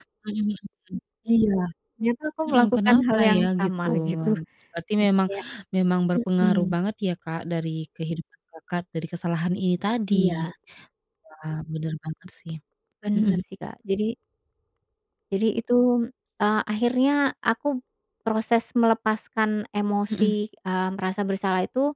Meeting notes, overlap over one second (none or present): present